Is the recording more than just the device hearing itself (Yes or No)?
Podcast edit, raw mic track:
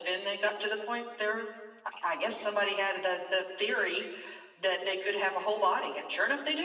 No